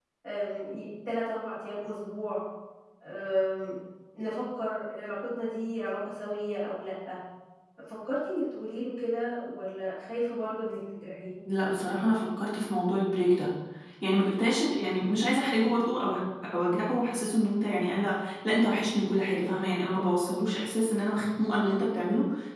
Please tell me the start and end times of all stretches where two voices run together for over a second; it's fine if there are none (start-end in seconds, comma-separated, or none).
none